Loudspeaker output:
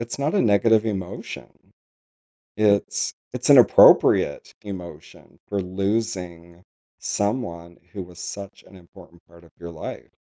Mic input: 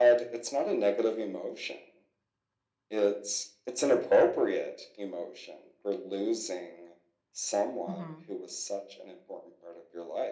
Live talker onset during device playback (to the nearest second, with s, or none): 8 s